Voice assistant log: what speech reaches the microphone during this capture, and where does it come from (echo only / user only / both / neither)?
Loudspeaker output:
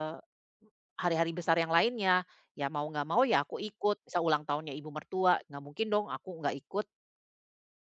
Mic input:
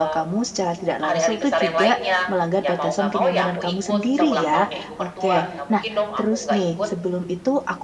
both